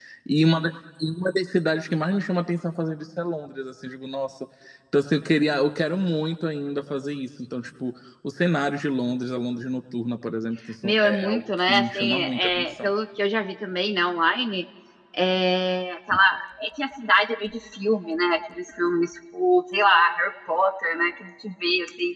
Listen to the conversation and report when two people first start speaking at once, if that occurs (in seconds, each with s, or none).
10.8 s